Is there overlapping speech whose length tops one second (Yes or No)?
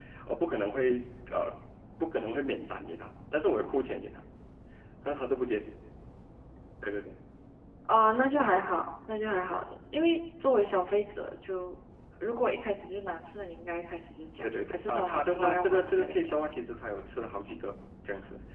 Yes